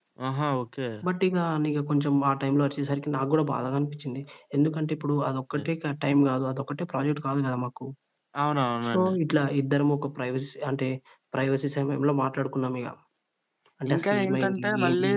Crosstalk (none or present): present